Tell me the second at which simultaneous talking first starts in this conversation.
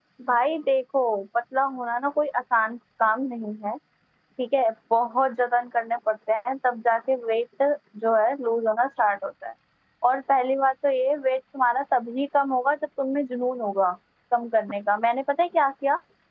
none

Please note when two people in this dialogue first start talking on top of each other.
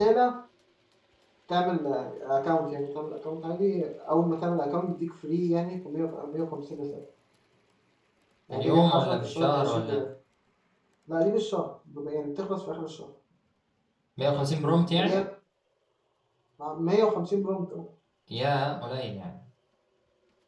9 s

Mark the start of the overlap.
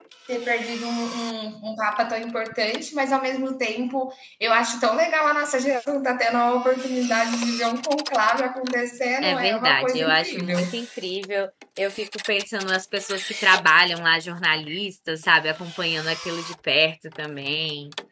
9 s

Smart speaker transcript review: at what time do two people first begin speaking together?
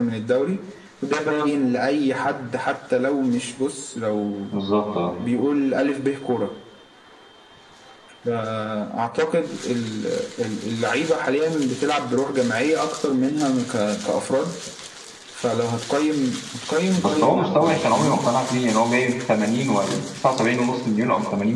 17 s

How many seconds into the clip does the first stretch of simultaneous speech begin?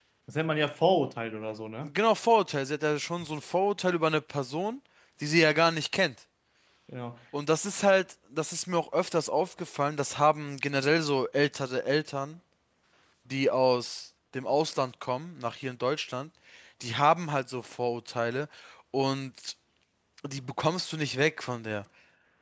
none

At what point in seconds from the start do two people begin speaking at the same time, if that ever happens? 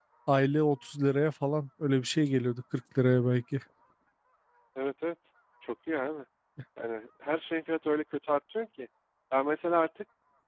none

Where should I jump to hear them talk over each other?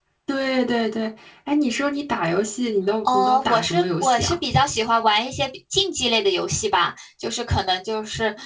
3 s

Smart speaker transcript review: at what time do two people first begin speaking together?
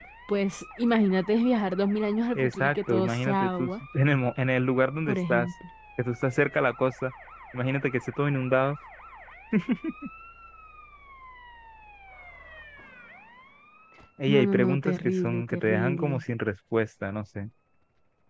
2 s

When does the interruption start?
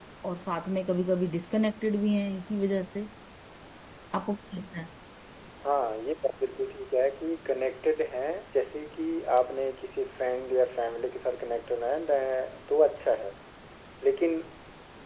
none

